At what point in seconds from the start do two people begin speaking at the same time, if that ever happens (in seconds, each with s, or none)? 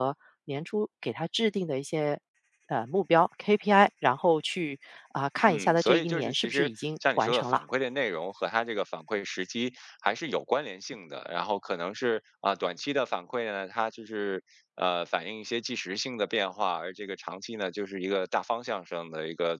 5.4 s